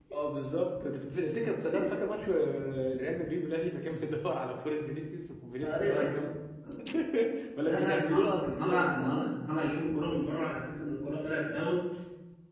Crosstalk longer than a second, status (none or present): present